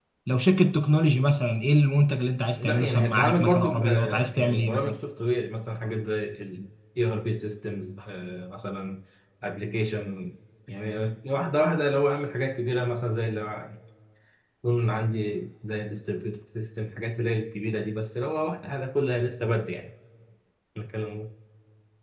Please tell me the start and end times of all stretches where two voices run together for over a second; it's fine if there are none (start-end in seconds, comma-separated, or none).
2.6-5.0